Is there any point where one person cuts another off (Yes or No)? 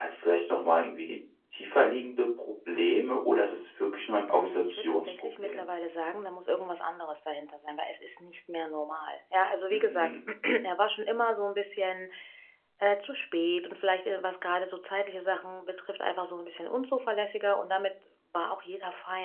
Yes